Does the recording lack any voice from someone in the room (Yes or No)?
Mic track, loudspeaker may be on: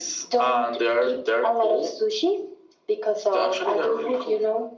Yes